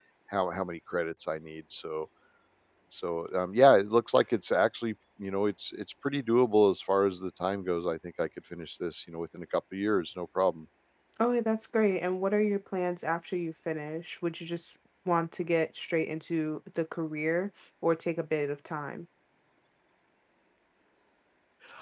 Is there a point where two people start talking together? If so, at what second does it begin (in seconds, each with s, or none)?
none